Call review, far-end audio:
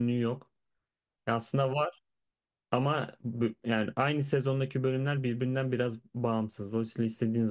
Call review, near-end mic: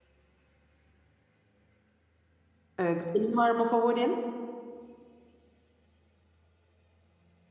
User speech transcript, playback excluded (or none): Evet. Senin var mı favorin?